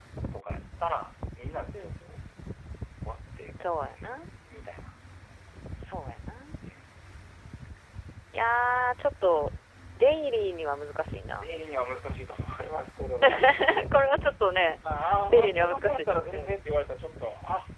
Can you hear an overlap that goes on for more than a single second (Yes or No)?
Yes